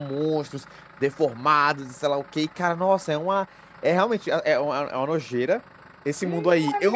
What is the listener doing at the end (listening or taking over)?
taking over